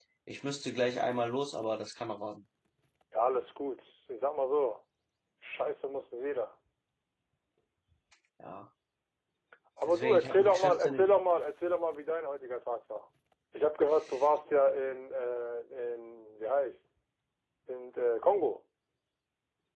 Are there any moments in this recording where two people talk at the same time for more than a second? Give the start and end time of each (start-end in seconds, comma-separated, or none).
9.8-11.1